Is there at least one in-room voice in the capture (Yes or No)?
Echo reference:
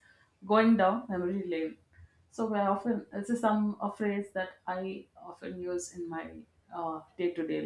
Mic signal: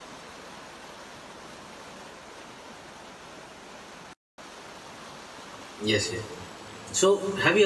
Yes